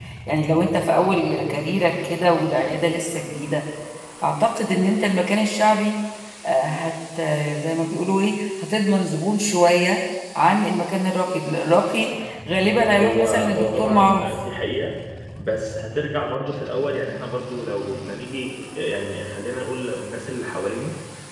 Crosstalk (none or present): present